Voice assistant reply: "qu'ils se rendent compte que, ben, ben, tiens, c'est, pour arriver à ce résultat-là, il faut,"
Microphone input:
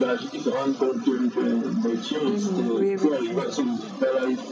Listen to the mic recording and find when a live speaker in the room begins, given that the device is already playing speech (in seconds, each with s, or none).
2.2 s